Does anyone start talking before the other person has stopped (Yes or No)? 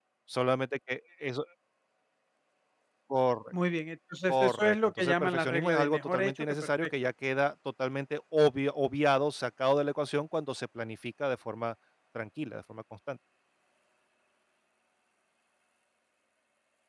Yes